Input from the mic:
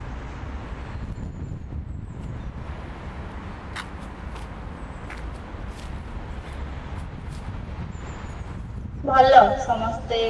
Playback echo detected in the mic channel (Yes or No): No